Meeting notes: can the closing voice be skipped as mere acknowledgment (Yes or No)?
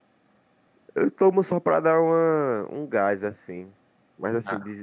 Yes